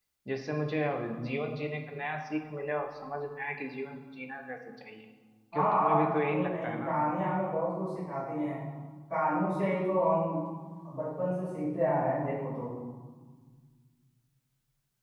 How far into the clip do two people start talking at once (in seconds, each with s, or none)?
5.5 s